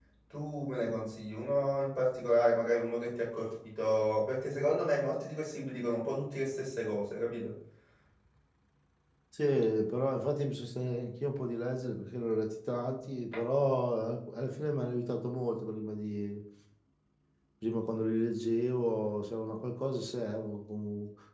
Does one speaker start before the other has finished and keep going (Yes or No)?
No